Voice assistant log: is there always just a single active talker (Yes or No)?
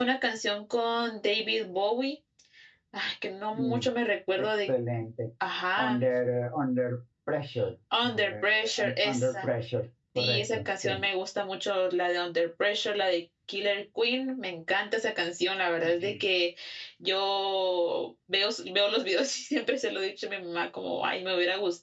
No